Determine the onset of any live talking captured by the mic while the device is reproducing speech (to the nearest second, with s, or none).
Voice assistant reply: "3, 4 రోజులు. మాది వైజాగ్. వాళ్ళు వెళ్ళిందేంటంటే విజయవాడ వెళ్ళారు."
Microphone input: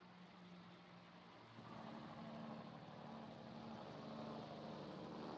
none